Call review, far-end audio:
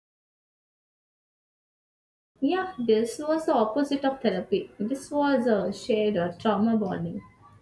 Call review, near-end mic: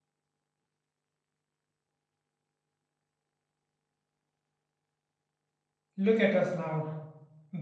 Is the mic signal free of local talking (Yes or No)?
No